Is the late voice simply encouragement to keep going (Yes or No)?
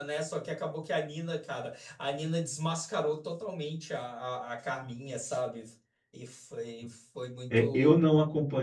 No